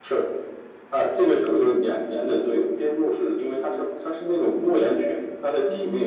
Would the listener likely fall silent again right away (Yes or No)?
Yes